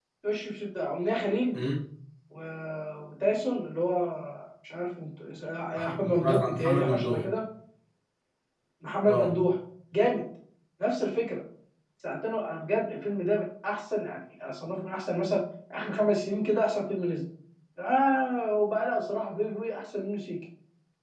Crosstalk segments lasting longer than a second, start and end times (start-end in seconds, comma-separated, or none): 5.8-7.2